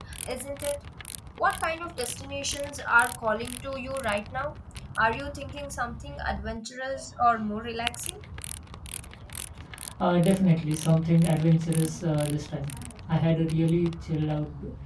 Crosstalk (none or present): none